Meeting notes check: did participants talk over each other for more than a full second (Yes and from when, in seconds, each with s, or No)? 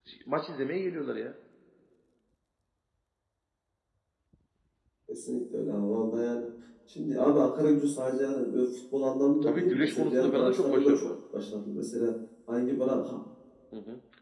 Yes, from 9.4 s